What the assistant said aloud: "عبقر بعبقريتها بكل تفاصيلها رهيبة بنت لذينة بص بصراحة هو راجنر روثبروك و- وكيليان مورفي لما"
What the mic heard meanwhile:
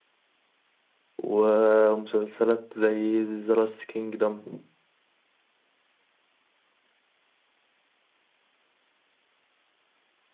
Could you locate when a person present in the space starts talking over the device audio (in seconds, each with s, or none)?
1.2 s